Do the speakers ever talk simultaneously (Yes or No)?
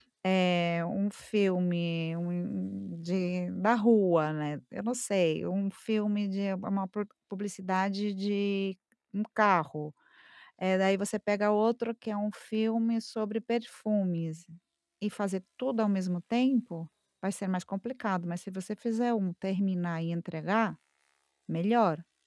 No